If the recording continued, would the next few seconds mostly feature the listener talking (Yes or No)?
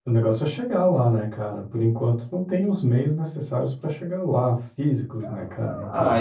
Yes